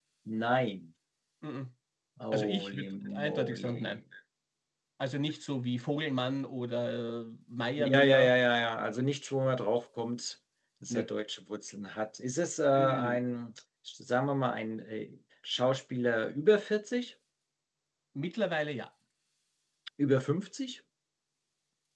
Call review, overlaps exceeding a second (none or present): present